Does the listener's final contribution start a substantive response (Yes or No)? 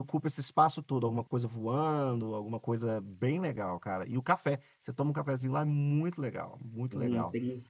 Yes